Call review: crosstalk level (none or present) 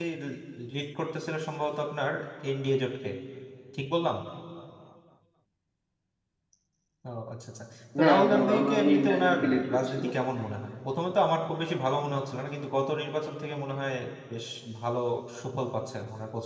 present